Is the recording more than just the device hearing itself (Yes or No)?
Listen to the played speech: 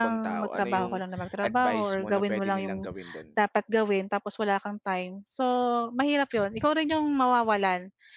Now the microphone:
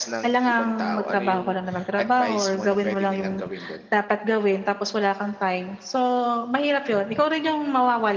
No